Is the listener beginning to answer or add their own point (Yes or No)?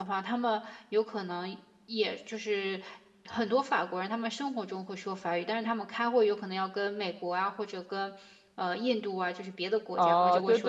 Yes